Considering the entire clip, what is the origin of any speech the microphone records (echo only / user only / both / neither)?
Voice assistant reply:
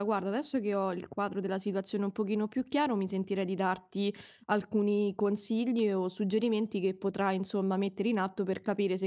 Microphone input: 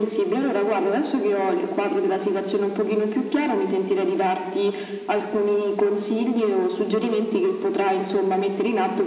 echo only